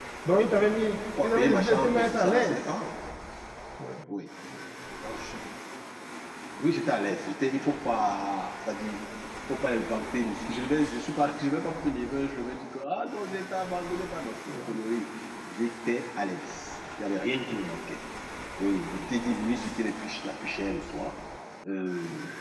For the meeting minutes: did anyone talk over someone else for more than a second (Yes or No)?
Yes